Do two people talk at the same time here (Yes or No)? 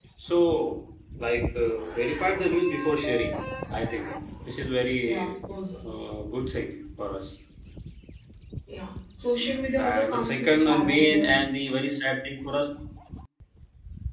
Yes